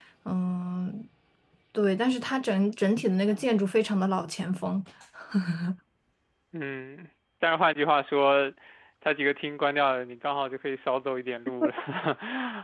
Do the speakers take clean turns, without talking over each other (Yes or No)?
Yes